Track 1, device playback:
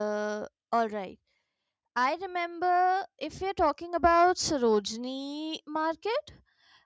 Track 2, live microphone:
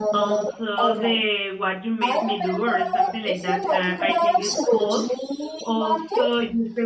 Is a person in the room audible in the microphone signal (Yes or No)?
Yes